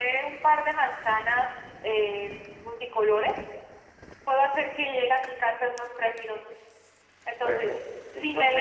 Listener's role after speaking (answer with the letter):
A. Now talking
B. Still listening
A